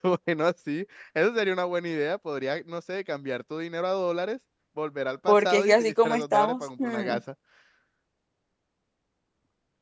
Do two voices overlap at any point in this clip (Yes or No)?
Yes